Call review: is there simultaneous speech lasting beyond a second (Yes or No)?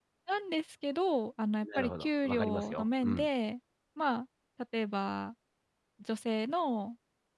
Yes